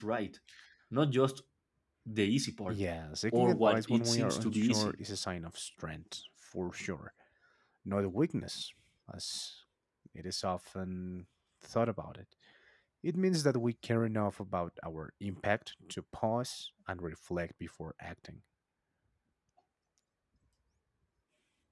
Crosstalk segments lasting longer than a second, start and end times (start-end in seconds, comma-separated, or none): 3.3-4.9